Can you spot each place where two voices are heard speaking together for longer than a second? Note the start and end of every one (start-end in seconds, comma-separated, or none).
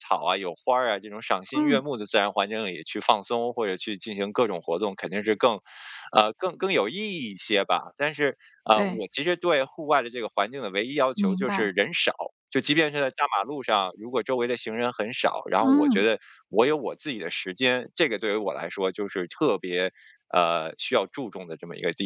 none